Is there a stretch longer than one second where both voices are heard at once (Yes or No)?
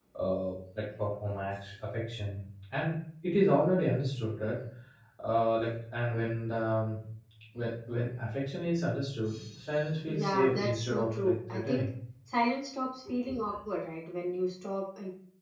Yes